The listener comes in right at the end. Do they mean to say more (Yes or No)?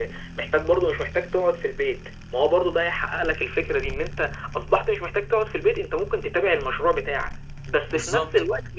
No